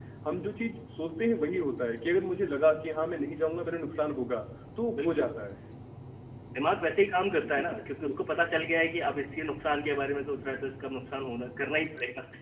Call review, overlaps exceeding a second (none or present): none